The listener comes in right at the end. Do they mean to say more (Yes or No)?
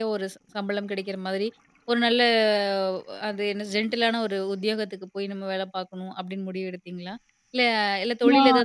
No